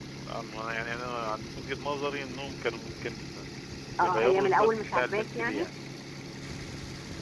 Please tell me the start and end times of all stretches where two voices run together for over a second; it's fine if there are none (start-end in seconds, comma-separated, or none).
4.0-5.7